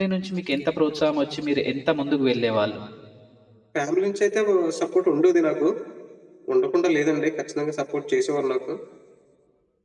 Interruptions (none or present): none